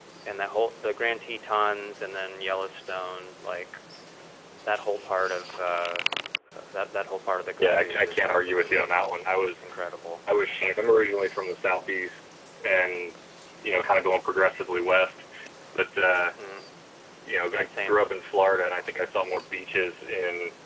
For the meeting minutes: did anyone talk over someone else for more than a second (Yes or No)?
Yes